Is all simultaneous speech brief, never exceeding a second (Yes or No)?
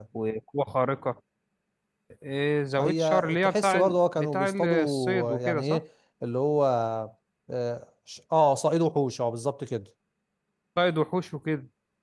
No